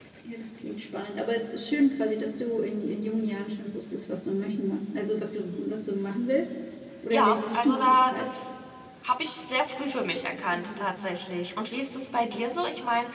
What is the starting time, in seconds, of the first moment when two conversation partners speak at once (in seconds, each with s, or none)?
7.1 s